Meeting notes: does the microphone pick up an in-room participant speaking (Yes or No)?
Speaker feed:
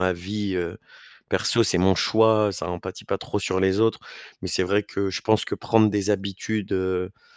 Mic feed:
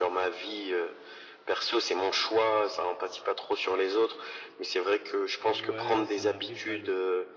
Yes